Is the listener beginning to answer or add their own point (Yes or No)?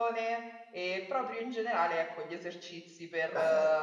No